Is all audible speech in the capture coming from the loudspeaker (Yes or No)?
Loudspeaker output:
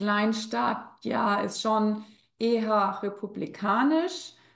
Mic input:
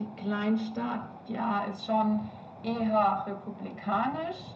Yes